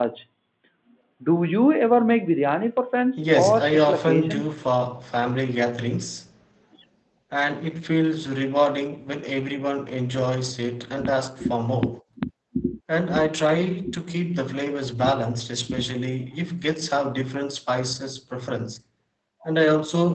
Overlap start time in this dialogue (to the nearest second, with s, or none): 3 s